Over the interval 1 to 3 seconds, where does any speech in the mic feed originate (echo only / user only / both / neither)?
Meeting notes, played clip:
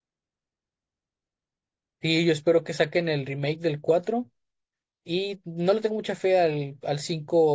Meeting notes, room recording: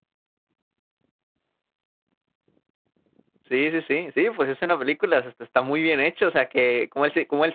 neither